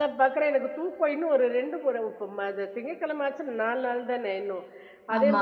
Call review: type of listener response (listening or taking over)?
listening